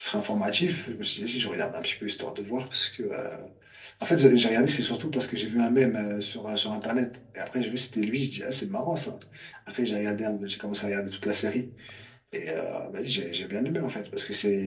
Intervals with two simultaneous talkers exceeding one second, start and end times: none

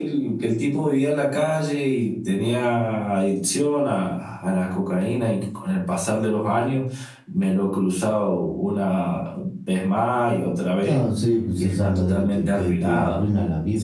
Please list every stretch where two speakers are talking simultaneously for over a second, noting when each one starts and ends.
11.6-13.2

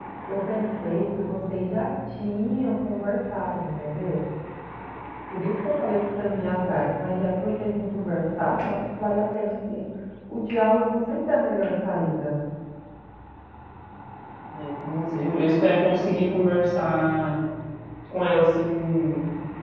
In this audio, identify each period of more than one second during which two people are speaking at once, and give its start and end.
none

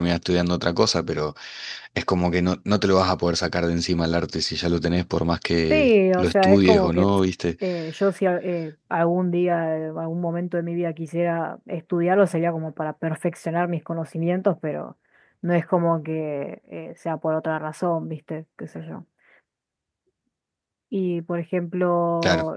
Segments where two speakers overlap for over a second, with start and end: 5.7-7.1

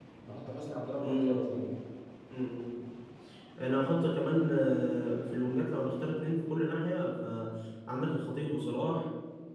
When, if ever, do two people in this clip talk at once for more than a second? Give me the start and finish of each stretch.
none

